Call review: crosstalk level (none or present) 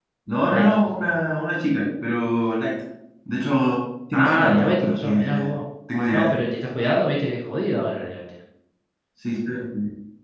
present